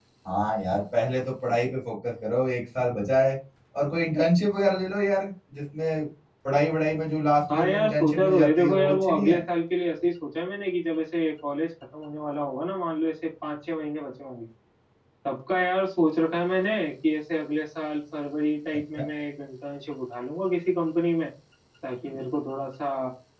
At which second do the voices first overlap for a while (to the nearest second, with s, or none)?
7 s